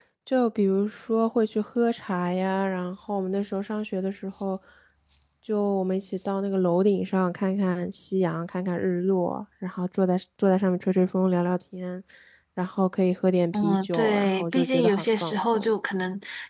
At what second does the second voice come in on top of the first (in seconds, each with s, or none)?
13.5 s